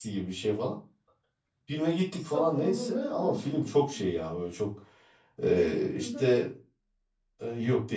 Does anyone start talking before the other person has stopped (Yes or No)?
Yes